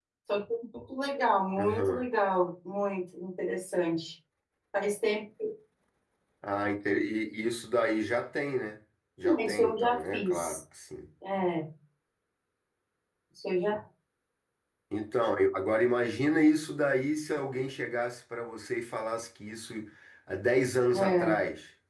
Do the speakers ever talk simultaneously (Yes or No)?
Yes